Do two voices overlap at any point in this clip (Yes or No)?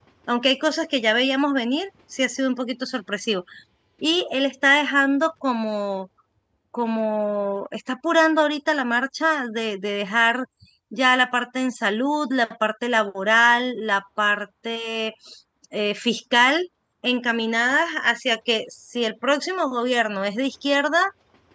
No